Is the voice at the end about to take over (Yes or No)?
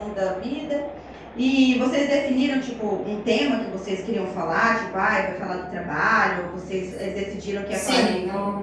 Yes